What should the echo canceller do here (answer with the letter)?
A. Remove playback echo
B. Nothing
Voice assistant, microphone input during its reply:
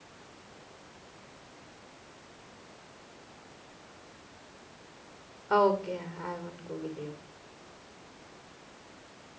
B